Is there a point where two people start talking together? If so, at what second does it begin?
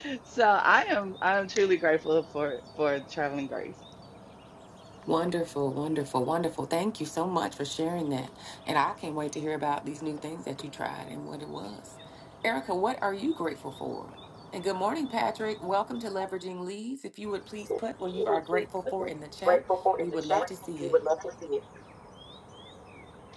17.7 s

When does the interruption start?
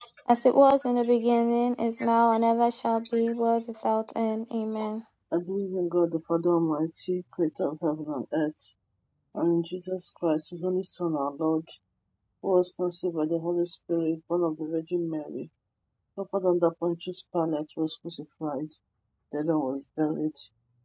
none

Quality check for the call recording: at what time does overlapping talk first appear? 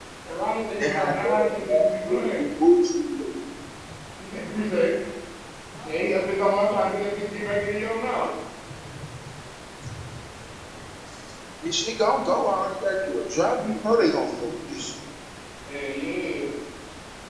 0.8 s

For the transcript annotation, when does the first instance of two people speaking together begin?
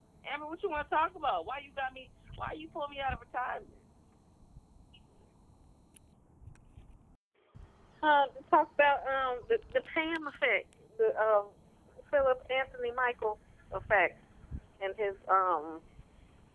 none

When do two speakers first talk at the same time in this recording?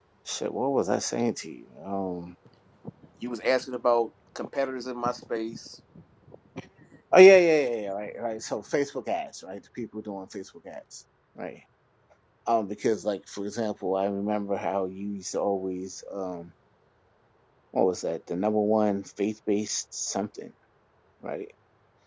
none

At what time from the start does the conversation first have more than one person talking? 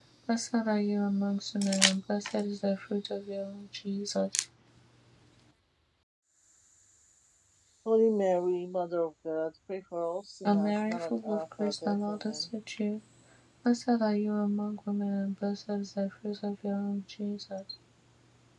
10.4 s

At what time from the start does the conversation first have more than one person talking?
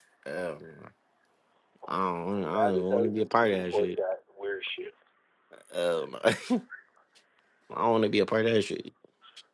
2.4 s

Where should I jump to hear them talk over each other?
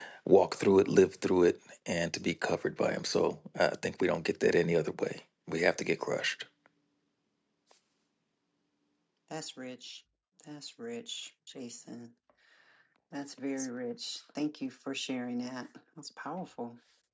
none

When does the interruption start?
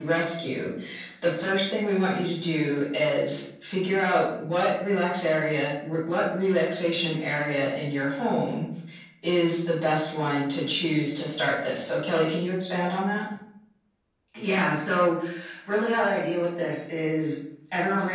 none

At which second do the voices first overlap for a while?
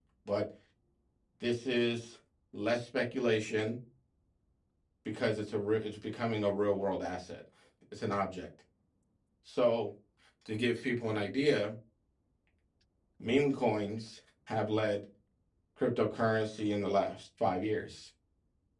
none

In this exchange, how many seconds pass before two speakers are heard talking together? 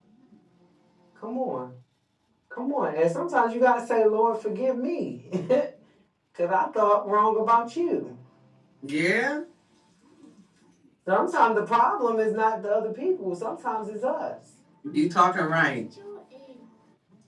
none

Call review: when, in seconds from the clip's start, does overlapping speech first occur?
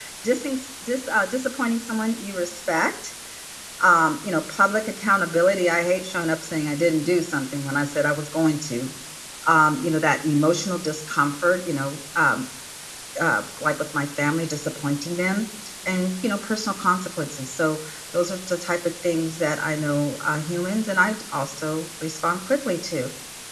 none

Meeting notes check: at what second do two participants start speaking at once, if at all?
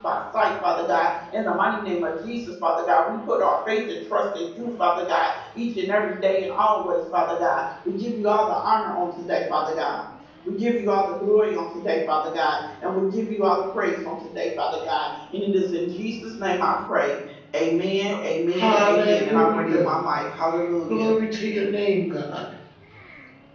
18.5 s

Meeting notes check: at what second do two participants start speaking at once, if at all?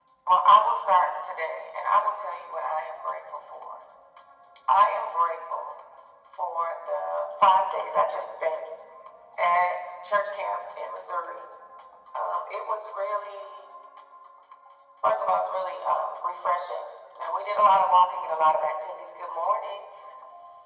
none

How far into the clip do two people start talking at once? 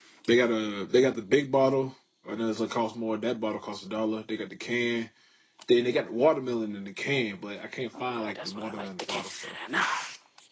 7.9 s

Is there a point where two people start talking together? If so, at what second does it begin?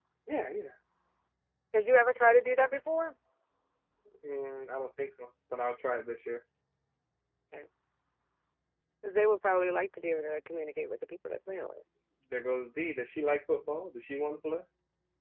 none

